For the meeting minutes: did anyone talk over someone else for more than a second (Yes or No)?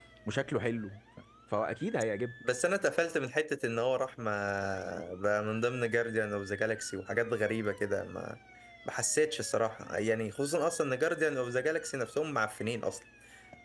No